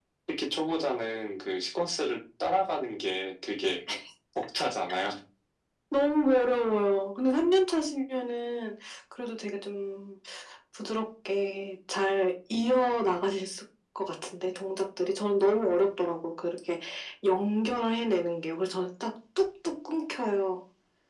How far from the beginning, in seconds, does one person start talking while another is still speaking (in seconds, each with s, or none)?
none